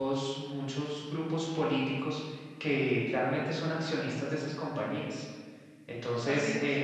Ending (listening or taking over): listening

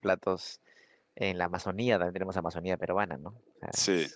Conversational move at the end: listening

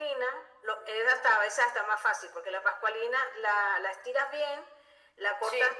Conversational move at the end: listening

